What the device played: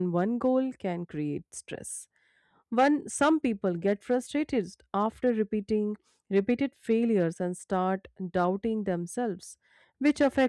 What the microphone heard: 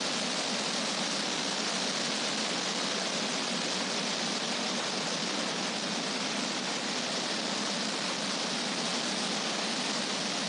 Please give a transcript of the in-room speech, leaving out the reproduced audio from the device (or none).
none